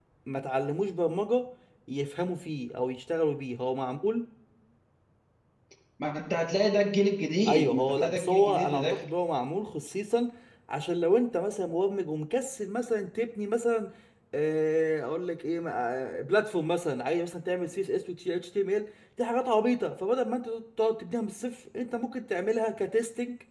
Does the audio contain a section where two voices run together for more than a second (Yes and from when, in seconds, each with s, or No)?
Yes, from 7.5 s